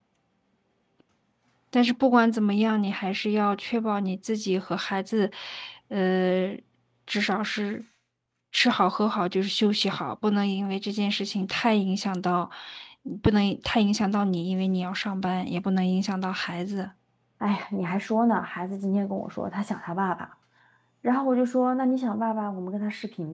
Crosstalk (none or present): none